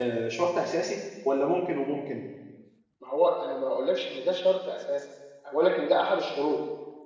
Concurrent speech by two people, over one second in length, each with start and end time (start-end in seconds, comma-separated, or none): none